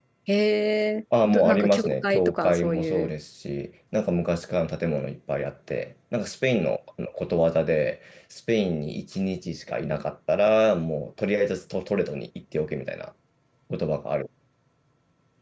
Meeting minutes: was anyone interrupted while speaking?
Yes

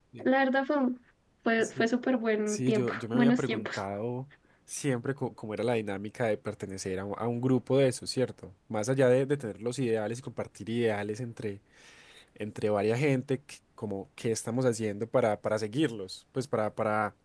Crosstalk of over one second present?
Yes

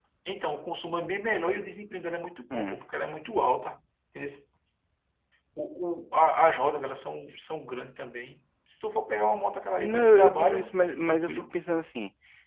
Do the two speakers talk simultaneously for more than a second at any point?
Yes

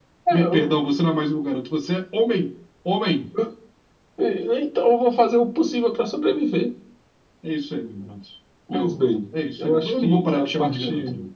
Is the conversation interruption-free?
No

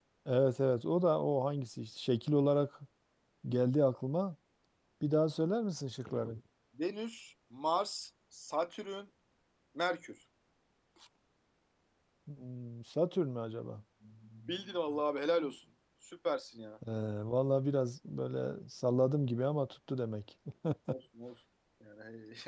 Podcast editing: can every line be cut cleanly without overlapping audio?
Yes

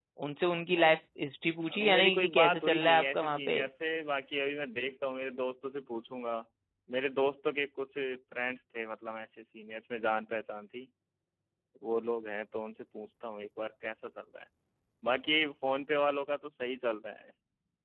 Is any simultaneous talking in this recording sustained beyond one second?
Yes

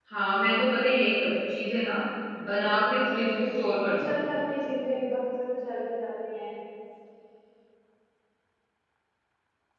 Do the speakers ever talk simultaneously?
Yes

